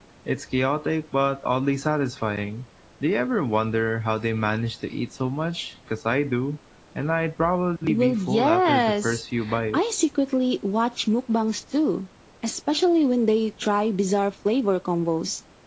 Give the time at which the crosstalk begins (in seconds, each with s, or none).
7.9 s